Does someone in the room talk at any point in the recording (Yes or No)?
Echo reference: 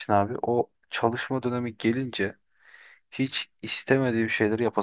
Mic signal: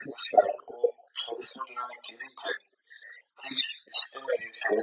No